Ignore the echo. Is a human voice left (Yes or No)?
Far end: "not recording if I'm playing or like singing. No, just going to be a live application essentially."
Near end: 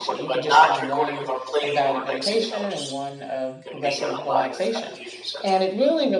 Yes